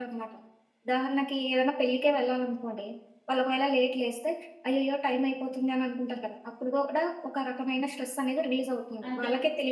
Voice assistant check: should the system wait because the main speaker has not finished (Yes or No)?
No